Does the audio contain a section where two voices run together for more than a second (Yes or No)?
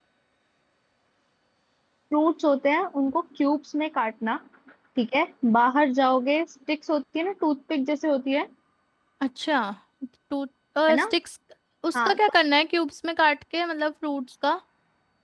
No